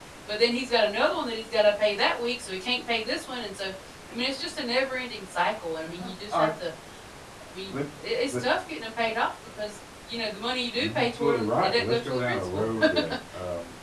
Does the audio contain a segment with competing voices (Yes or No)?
Yes